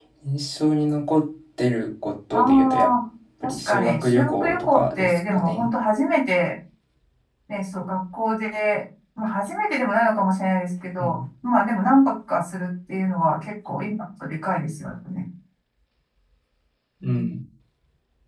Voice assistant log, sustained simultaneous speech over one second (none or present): present